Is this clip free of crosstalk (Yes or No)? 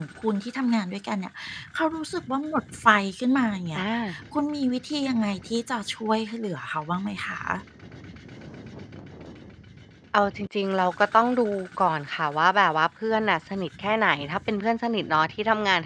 Yes